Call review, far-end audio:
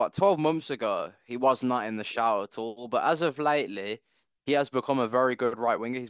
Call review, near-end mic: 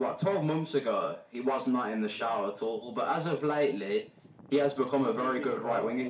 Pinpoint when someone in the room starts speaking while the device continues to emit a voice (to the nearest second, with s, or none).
5 s